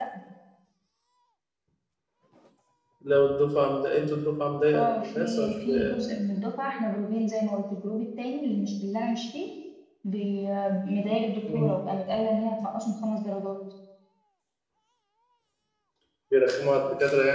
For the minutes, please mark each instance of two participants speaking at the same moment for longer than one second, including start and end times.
4.7-5.9

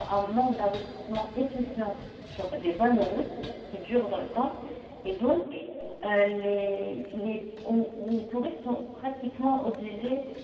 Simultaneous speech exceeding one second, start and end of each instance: none

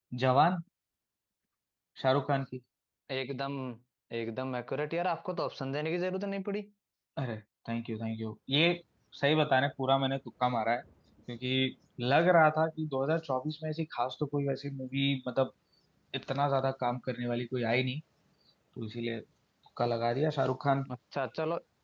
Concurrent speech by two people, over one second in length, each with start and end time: none

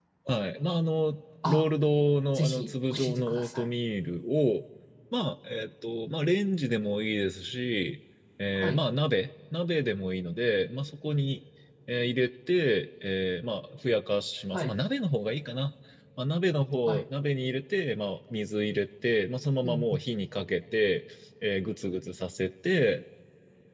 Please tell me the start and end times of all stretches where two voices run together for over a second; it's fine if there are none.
2.4-3.6

